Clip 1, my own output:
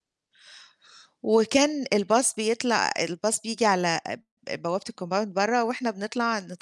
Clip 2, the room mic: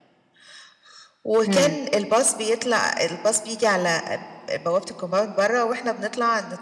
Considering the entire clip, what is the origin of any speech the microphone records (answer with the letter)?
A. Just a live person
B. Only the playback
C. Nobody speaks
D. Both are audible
D